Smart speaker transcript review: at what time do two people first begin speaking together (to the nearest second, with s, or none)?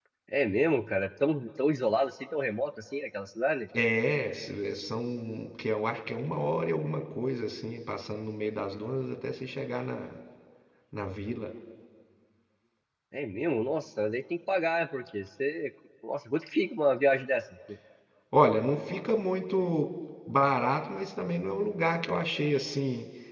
none